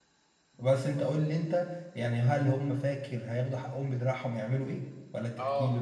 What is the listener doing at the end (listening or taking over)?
taking over